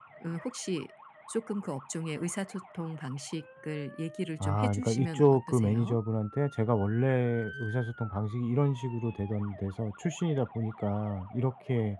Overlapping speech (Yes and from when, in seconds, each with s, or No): Yes, from 4.4 s